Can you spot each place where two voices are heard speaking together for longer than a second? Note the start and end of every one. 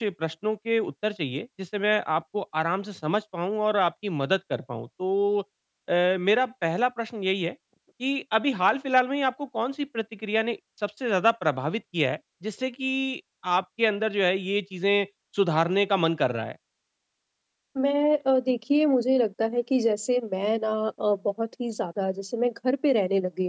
none

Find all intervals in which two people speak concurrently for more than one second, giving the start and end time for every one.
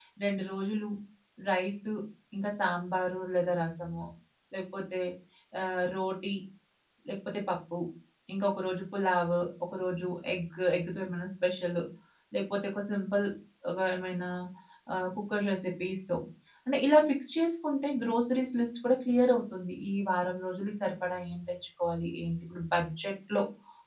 none

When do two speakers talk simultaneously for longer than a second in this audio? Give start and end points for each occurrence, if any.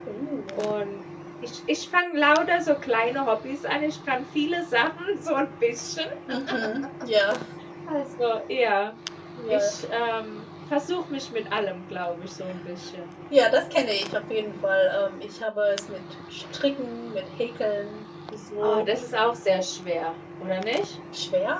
none

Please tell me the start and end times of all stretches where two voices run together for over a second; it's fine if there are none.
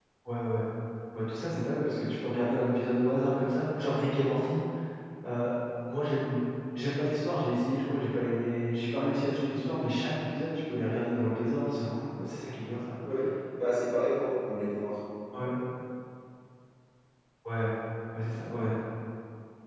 none

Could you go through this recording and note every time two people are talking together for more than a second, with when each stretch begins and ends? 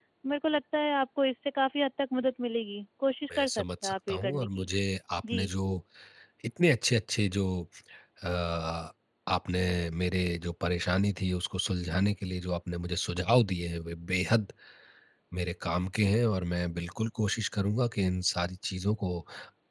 3.3-4.7

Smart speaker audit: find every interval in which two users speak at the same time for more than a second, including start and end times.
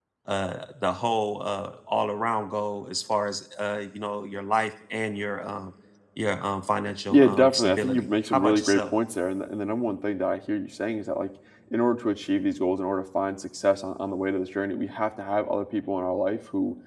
7.1-8.9

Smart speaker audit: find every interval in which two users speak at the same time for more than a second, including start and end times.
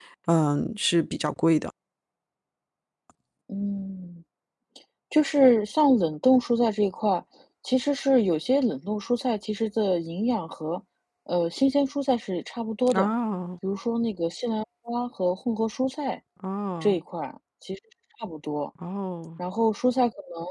none

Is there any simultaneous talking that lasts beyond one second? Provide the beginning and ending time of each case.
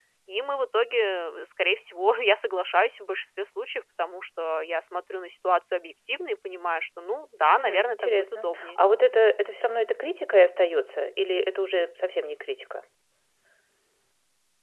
7.6-8.8

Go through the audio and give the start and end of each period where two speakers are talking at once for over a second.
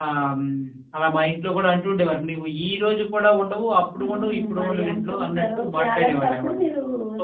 4.0-6.5

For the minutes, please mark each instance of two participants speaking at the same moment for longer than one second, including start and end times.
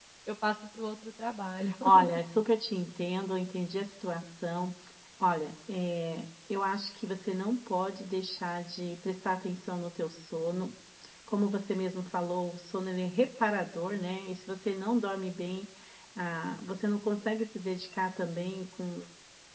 none

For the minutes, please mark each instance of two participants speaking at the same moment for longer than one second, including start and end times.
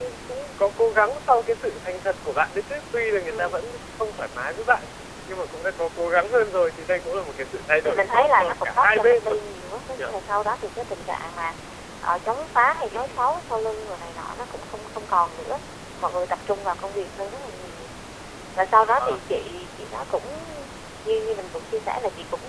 7.8-9.3

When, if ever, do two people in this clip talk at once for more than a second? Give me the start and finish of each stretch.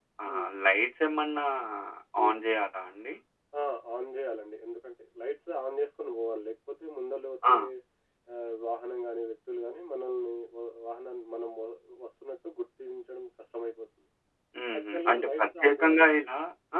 14.8-16.1

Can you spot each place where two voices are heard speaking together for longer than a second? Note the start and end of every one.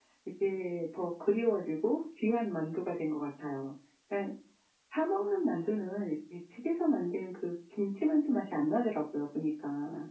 none

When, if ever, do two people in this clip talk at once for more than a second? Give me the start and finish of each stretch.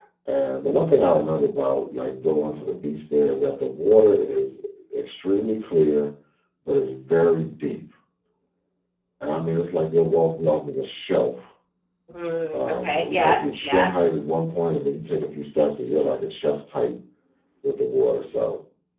12.5-13.9

